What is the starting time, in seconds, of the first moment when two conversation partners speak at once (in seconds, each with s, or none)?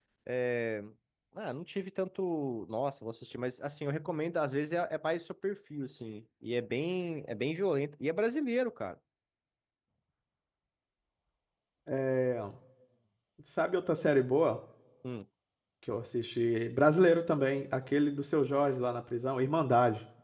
none